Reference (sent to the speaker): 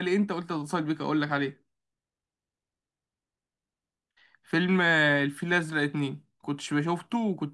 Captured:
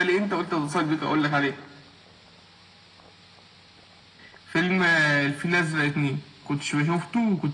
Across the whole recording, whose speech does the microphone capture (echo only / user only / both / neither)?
echo only